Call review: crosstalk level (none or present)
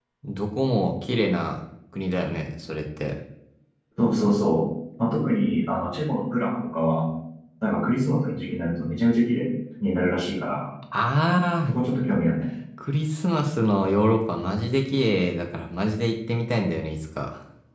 none